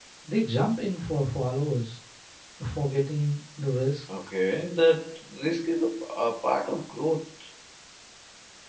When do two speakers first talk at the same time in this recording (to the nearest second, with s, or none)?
none